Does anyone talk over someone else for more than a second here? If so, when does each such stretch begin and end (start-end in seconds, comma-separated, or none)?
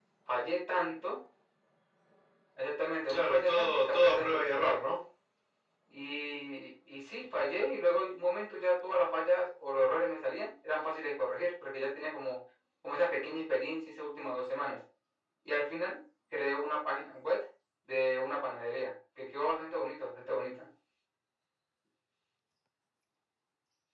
3.1-4.7